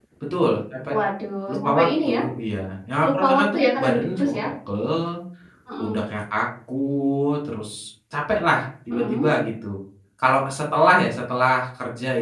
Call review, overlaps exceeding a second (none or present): present